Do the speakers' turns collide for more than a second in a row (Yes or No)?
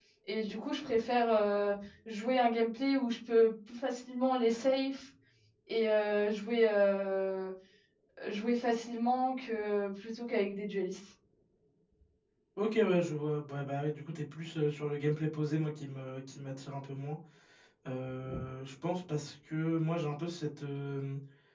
No